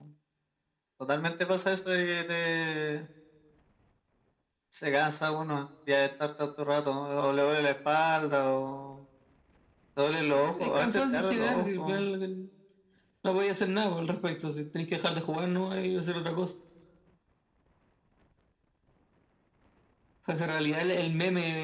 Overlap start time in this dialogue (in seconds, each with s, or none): 10.3 s